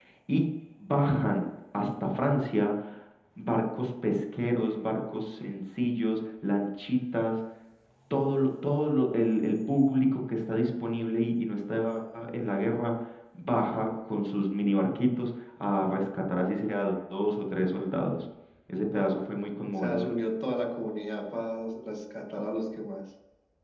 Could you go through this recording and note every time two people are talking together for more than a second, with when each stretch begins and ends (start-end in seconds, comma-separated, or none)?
none